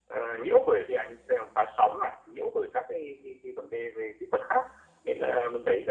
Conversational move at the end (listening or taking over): listening